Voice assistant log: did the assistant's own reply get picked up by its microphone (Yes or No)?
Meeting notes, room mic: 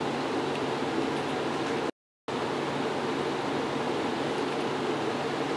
No